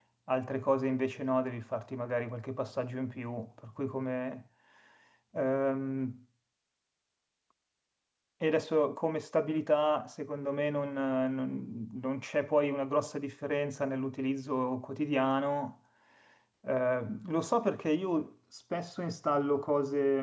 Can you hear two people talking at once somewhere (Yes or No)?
No